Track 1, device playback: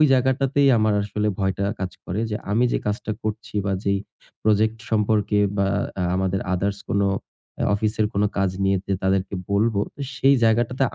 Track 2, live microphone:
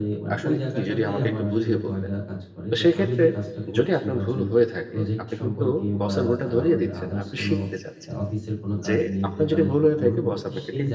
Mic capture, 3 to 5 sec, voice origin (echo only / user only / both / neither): both